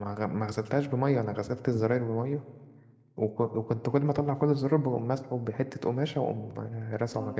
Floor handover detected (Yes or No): Yes